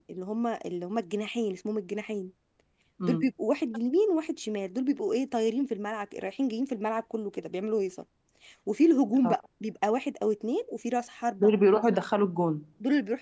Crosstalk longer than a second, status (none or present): none